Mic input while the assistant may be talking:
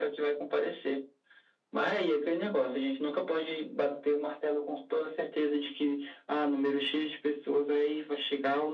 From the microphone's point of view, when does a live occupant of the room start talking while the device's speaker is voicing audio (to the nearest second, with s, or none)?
none